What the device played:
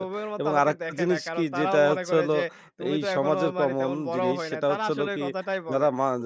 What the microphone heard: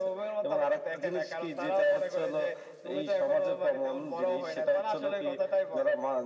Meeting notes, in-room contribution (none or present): none